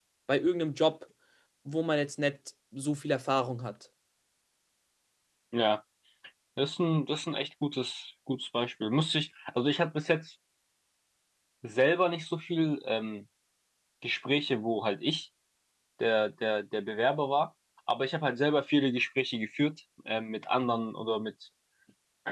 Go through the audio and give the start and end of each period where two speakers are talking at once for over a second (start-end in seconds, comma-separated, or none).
none